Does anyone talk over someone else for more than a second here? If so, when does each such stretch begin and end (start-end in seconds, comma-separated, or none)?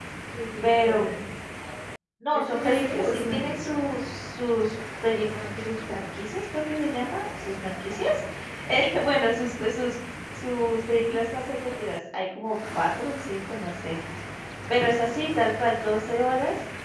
2.3-3.8